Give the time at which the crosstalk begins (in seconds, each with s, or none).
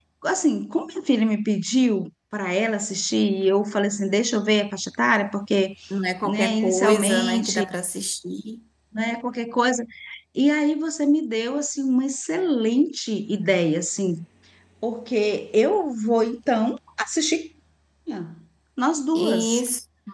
6.2 s